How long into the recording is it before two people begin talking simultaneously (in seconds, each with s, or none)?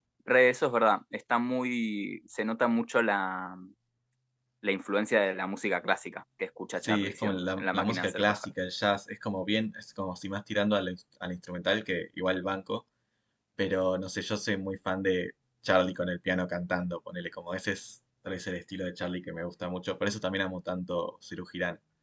6.8 s